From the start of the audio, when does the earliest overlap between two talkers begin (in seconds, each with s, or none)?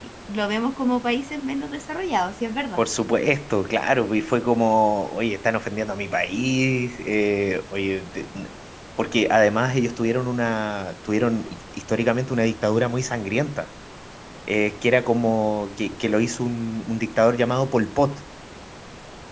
none